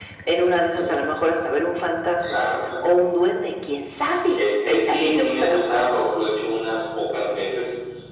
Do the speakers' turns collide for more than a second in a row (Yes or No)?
Yes